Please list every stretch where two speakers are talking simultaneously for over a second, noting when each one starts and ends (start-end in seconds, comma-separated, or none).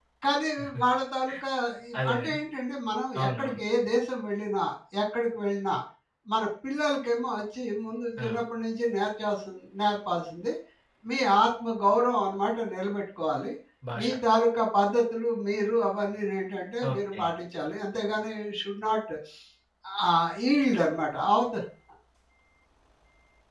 none